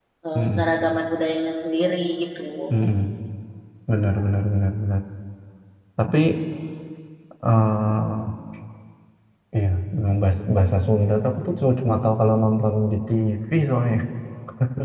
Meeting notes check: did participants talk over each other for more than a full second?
No

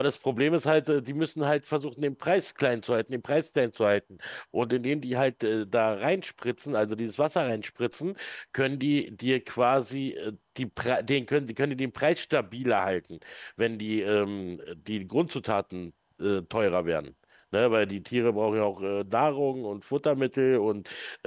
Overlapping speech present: No

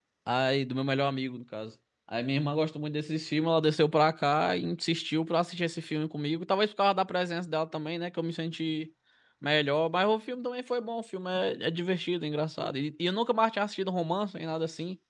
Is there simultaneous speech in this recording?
No

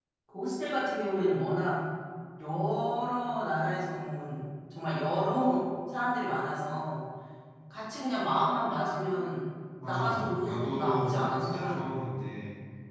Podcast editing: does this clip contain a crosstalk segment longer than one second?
Yes, from 9.8 s

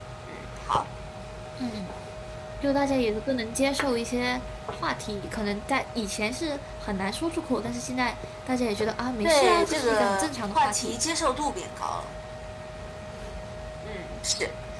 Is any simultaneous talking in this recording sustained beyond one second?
Yes, from 9.2 s

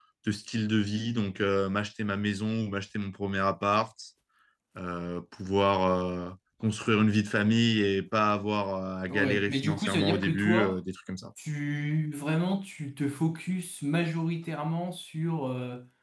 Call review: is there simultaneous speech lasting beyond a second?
Yes, from 9.1 s

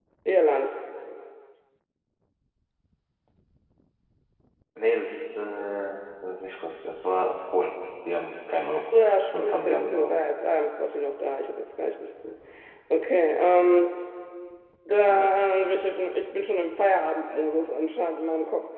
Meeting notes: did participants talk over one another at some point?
Yes, from 8.8 s

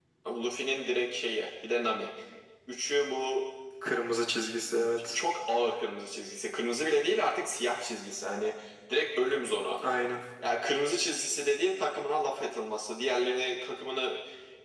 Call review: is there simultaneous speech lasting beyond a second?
No

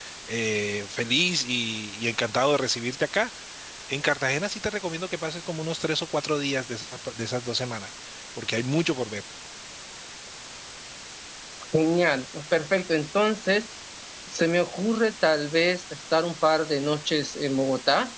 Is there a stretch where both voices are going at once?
No

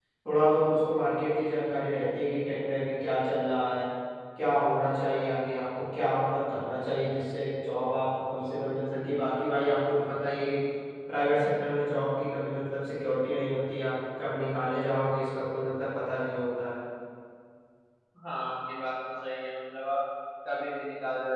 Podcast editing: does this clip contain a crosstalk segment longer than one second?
No

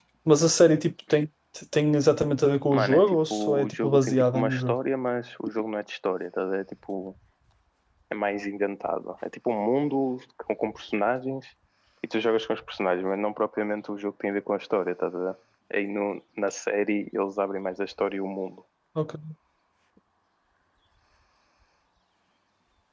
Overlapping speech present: Yes, from 2.7 s

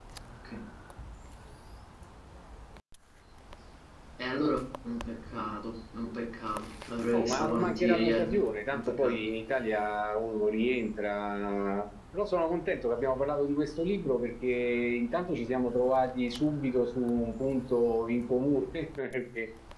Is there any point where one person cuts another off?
Yes, from 7.1 s

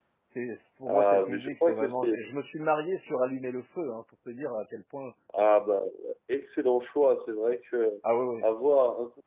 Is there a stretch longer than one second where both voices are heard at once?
Yes, from 0.9 s

